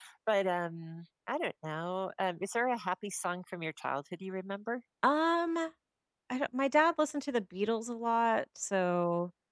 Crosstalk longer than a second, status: none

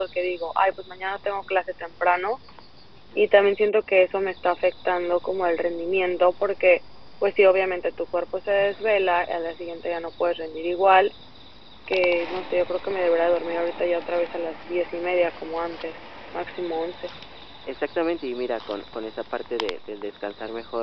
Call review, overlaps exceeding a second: none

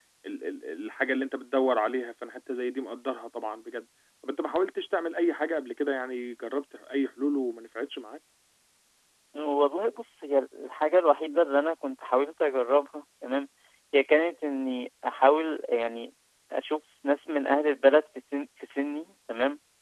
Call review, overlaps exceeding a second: none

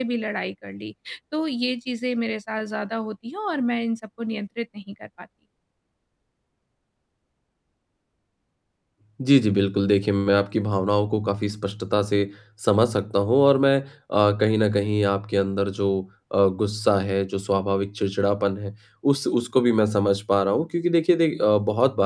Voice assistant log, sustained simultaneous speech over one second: none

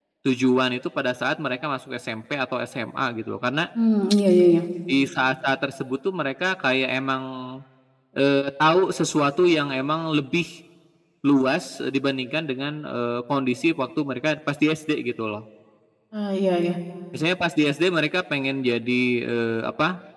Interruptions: none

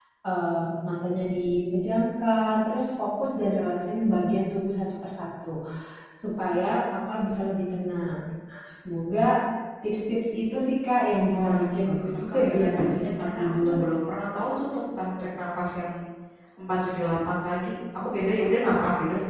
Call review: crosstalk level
present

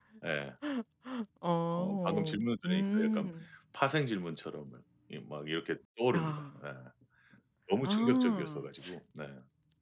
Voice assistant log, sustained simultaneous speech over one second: present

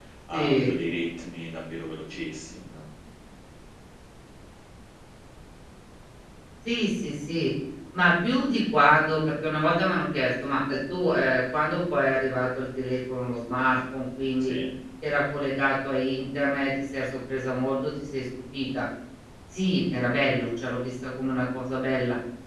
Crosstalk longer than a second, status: none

